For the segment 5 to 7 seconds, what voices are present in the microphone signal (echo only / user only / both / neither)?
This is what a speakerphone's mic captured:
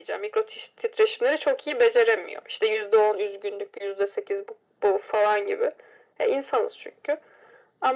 echo only